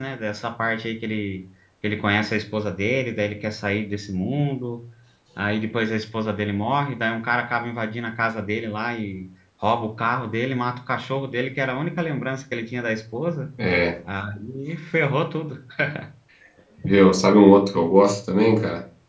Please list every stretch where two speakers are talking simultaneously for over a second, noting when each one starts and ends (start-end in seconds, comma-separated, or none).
none